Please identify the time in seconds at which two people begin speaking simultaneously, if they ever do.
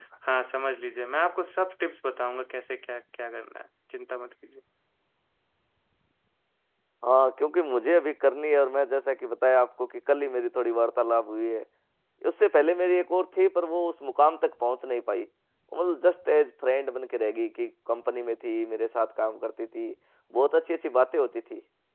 none

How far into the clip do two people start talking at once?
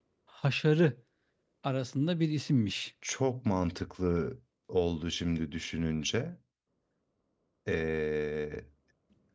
none

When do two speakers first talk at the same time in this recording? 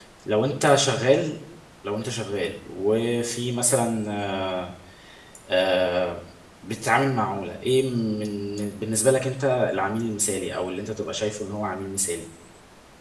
none

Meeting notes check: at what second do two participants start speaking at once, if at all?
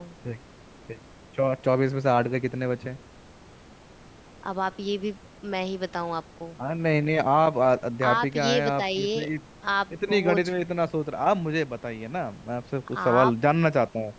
8 s

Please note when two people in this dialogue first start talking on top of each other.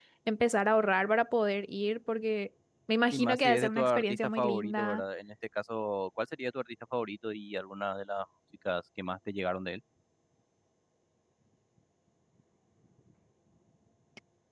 3 s

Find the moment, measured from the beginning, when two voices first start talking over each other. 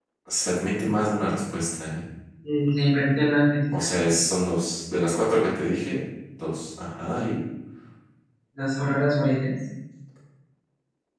none

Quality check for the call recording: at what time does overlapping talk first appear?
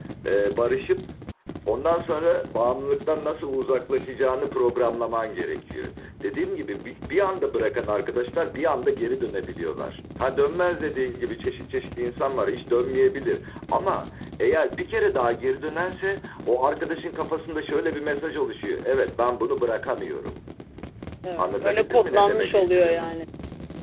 21 s

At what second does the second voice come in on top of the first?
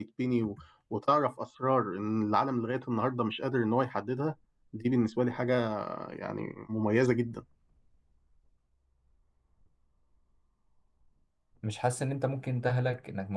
none

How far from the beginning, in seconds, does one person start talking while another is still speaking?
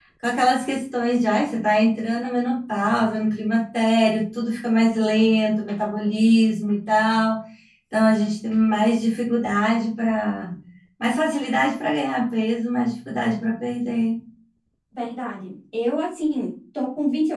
none

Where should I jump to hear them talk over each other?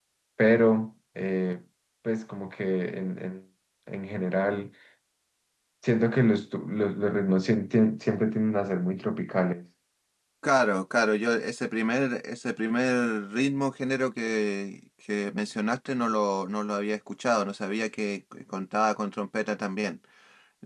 none

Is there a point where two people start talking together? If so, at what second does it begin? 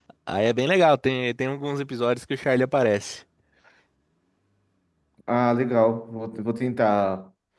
none

